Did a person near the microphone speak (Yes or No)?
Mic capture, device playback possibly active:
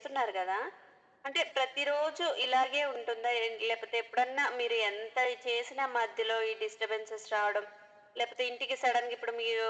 No